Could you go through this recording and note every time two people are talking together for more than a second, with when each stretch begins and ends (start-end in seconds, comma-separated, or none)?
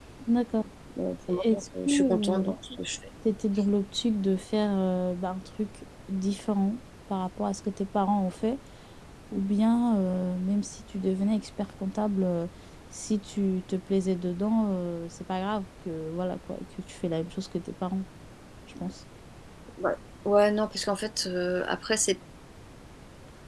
1.3-2.5